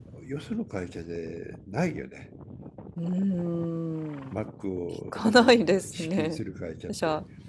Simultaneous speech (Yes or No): Yes